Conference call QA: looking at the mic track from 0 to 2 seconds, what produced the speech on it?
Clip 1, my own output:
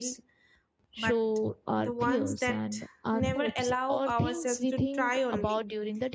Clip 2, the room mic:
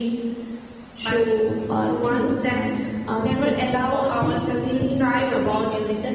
echo only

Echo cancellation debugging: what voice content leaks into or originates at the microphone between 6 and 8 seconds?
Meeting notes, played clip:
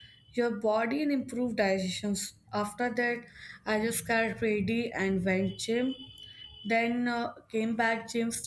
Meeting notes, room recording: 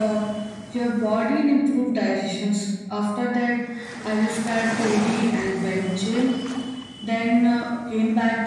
echo only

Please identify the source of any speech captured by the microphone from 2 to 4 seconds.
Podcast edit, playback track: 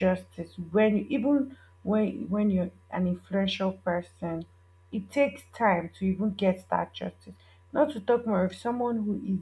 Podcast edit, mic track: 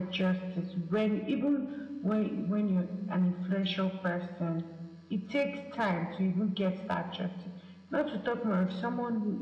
echo only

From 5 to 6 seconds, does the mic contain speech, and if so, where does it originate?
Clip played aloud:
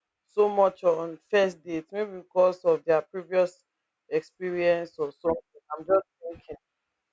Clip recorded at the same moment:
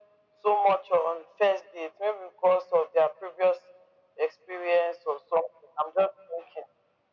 echo only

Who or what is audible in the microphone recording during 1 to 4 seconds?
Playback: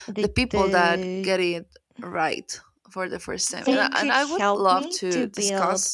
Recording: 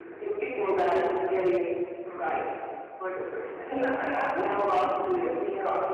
echo only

